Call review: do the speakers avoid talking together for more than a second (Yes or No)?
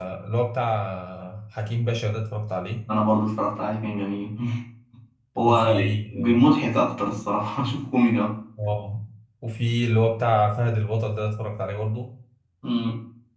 Yes